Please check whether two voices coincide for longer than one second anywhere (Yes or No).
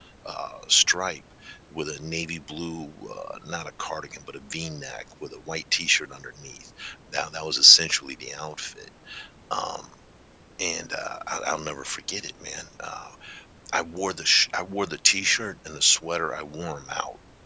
No